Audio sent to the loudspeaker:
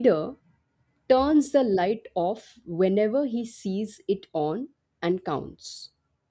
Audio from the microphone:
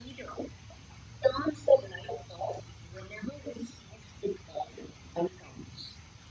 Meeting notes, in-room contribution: none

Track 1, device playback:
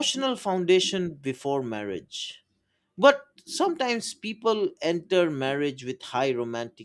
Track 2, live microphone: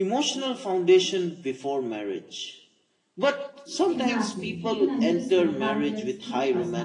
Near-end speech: present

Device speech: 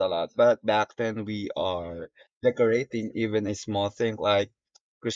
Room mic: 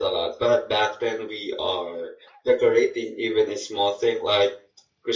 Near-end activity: none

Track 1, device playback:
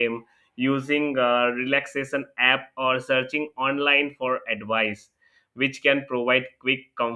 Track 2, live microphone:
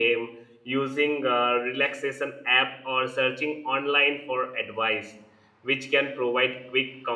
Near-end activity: none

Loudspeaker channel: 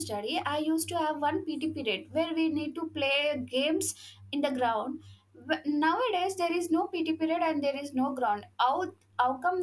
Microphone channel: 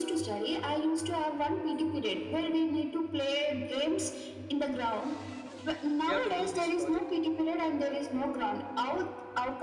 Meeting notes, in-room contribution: present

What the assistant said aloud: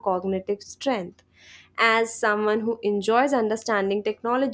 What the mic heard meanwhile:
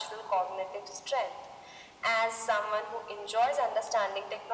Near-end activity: none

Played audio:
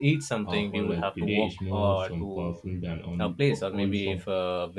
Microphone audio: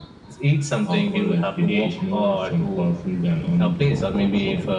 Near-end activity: none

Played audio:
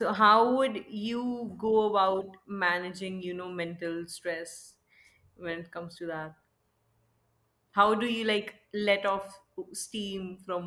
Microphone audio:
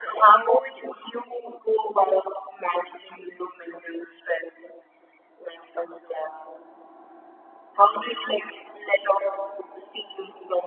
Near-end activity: none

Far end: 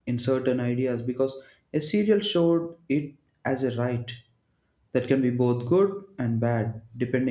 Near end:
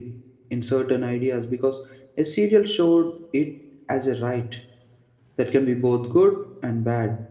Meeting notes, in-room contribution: none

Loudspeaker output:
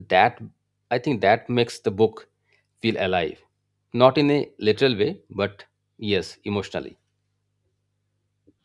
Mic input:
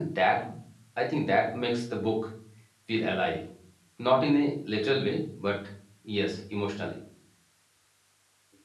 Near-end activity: none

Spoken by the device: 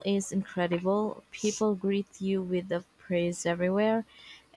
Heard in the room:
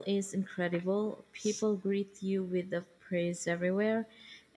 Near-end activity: none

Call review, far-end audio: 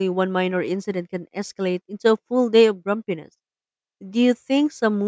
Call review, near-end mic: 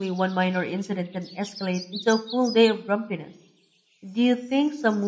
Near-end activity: none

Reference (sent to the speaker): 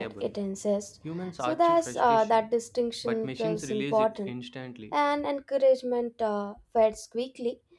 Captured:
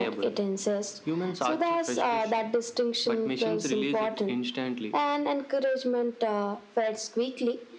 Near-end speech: none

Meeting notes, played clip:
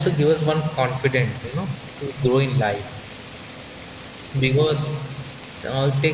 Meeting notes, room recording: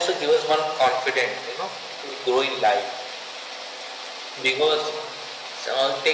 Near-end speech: none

